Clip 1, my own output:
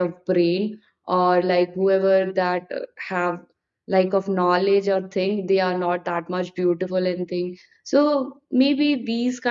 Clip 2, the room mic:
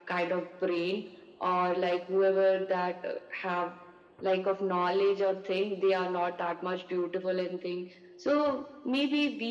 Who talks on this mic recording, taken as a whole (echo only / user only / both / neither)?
echo only